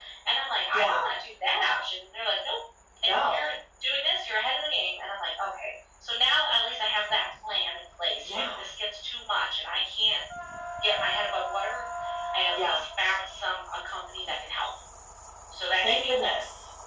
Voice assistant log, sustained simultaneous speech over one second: none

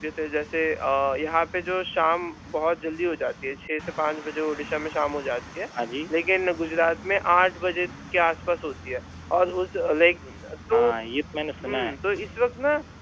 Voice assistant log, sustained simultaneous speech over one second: none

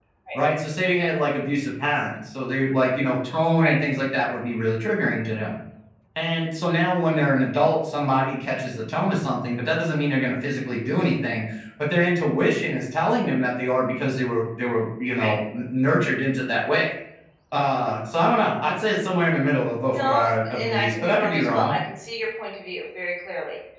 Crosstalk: present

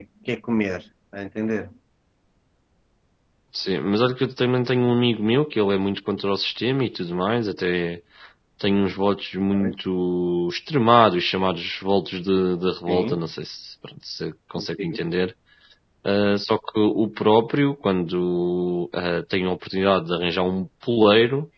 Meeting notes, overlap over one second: none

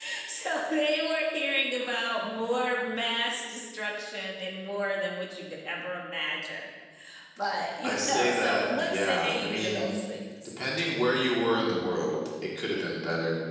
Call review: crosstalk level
present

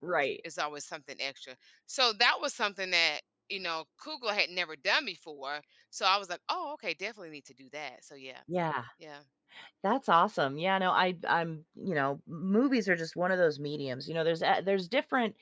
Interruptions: none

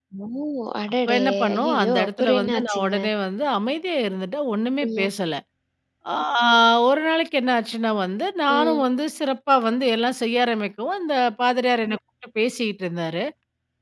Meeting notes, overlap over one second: present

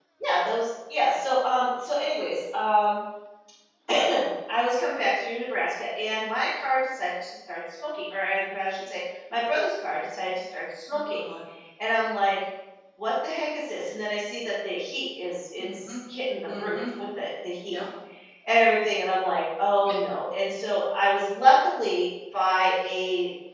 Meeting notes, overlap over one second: none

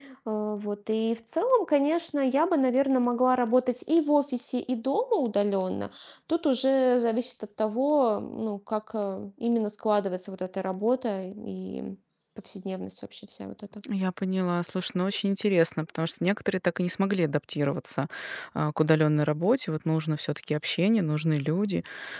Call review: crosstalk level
none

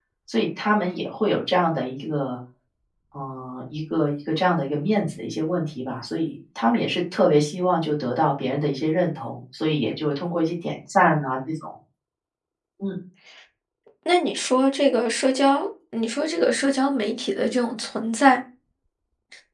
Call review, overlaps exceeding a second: none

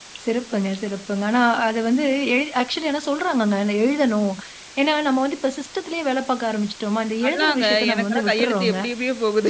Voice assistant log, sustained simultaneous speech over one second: present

